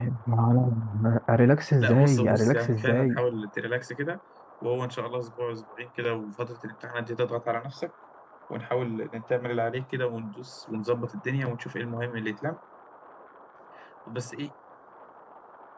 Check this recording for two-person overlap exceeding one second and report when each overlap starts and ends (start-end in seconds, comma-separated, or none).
1.8-3.2